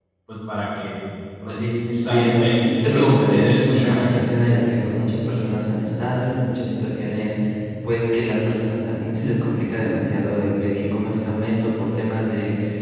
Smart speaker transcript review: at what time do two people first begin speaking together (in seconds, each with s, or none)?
1.9 s